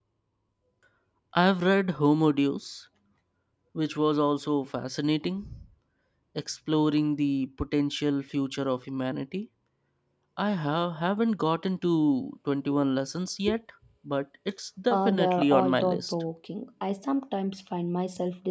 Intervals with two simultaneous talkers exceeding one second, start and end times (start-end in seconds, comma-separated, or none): 14.9-16.1